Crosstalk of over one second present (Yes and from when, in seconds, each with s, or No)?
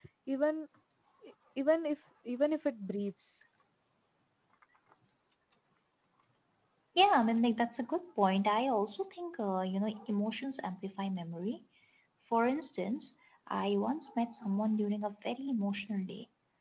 No